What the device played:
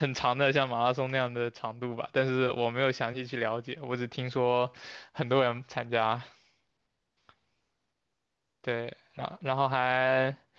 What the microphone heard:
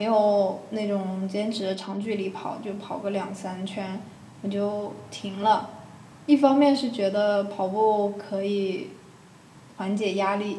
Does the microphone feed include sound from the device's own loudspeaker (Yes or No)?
No